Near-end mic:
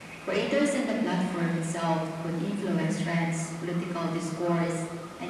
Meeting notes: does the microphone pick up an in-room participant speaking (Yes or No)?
No